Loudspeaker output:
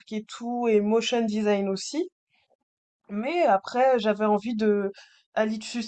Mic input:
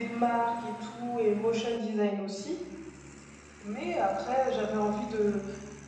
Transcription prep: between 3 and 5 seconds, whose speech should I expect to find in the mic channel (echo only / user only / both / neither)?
echo only